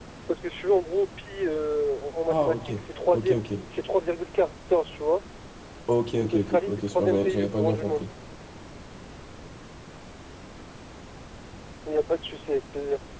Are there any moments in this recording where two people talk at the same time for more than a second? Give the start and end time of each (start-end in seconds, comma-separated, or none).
6.2-8.1